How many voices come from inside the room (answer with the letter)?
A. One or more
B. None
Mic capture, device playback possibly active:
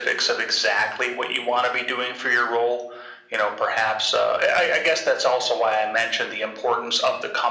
B